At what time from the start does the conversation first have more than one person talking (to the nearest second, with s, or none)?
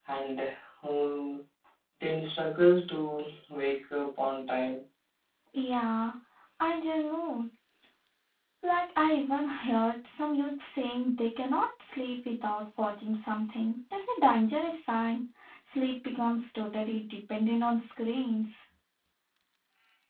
none